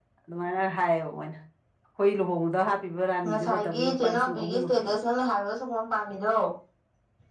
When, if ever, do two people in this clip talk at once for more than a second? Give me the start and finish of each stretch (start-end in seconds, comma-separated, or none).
3.2-4.9